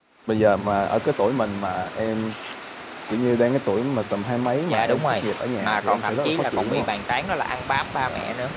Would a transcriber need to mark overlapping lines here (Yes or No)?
Yes